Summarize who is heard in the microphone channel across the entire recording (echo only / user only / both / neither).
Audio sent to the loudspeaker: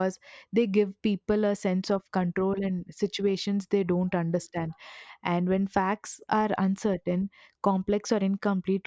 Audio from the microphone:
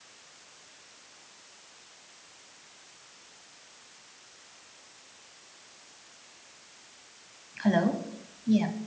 user only